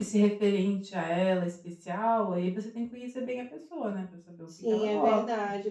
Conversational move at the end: taking over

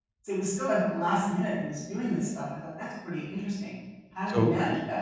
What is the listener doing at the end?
taking over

